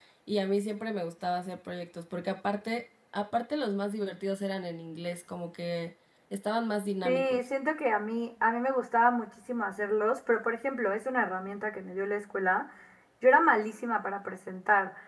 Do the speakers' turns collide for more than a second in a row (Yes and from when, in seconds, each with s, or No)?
No